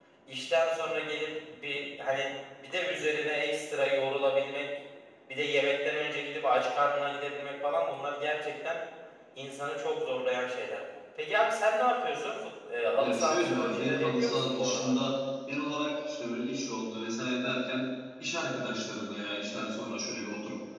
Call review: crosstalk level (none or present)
present